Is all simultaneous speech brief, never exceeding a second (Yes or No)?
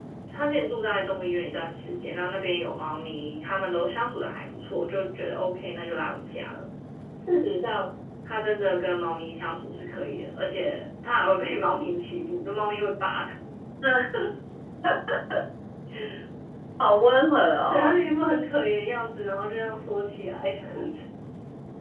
Yes